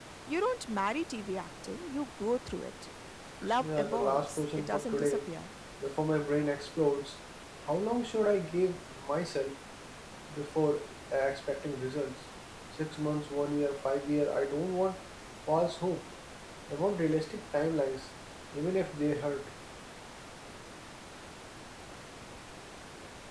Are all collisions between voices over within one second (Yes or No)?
No